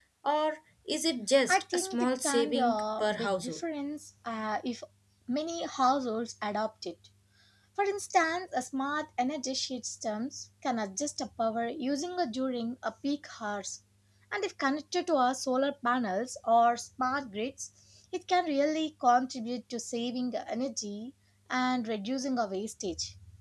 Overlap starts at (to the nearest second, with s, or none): 1 s